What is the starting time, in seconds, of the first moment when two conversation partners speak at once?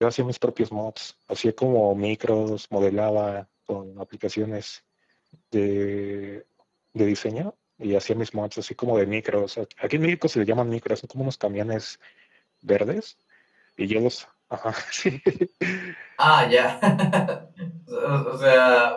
none

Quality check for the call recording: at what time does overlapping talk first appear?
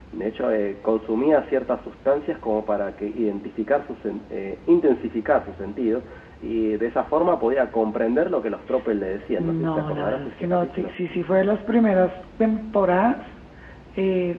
9 s

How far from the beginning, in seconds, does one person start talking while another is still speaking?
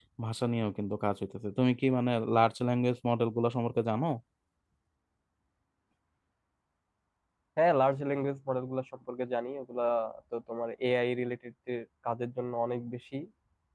none

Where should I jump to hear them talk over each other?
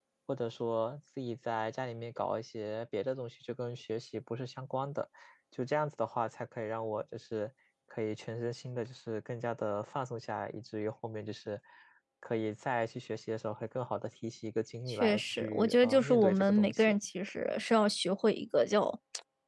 15 s

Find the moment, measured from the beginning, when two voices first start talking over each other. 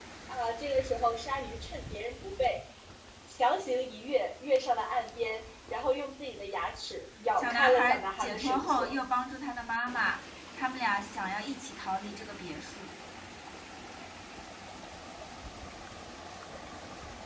7 s

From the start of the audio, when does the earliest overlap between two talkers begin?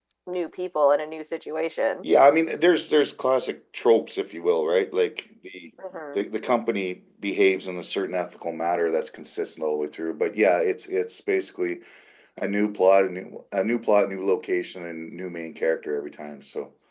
none

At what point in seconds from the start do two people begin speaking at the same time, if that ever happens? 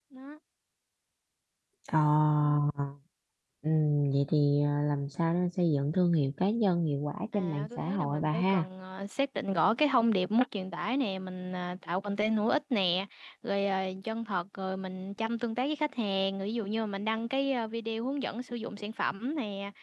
7 s

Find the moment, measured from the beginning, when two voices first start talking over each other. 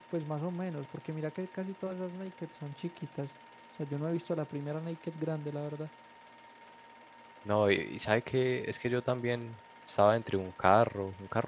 none

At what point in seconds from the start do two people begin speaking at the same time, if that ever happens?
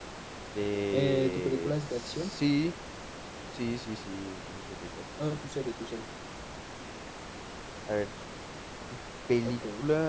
1 s

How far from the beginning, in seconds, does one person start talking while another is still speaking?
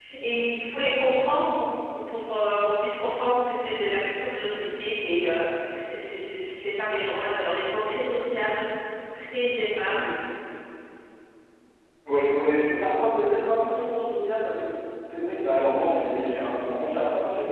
none

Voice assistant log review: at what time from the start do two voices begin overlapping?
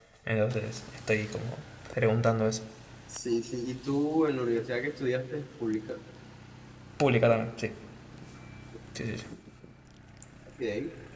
none

